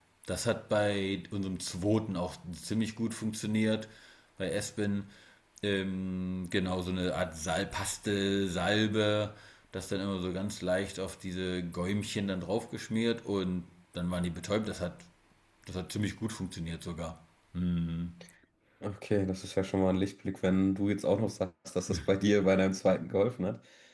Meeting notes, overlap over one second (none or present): none